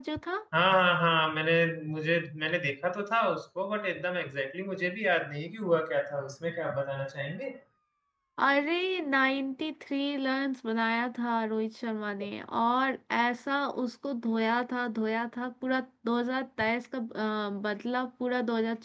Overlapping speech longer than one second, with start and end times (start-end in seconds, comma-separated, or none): none